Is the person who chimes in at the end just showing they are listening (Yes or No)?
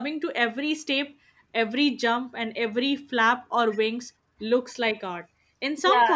No